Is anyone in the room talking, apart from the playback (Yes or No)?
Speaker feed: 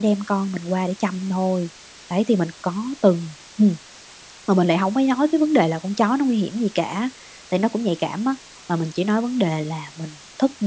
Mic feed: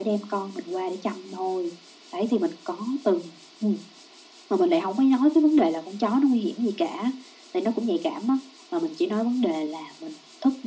No